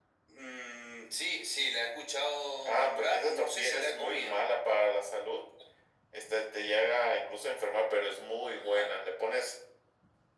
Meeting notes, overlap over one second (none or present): present